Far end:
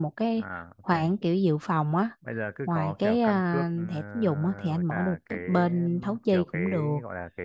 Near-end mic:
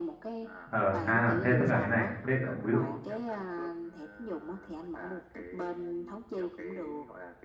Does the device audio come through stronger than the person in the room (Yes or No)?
No